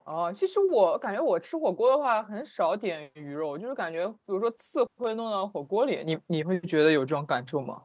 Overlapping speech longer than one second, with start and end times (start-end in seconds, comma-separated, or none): none